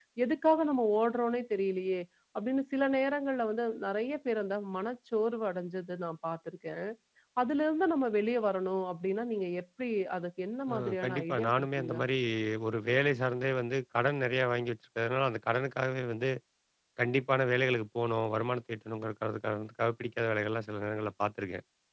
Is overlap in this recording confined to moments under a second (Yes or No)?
No